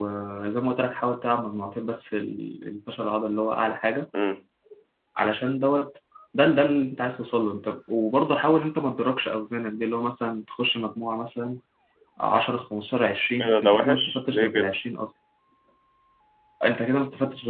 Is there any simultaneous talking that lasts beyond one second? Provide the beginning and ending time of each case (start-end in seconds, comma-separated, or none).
13.4-14.8